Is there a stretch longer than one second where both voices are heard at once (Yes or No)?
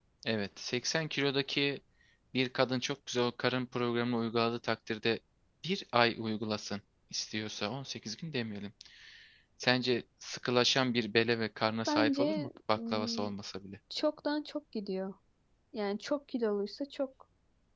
Yes